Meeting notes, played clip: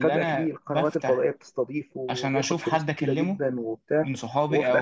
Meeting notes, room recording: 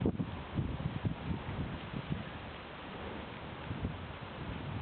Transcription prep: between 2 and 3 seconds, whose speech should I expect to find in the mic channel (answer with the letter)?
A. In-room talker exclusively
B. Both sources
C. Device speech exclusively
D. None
D